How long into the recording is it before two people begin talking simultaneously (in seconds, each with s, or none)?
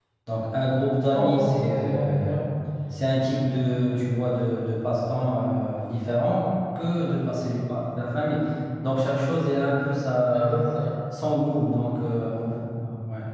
1.1 s